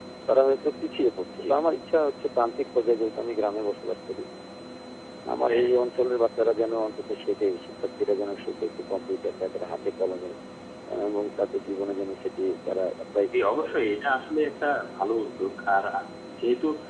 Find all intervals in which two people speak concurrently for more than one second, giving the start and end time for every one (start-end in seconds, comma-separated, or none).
none